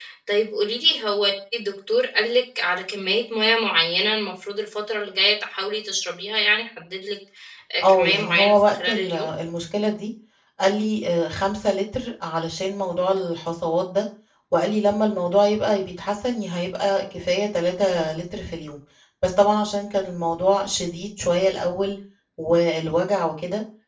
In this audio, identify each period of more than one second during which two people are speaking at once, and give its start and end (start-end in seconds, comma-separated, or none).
7.8-9.3